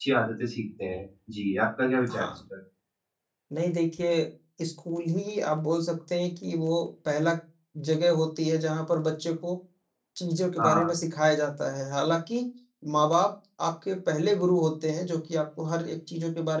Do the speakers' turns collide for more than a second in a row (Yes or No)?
No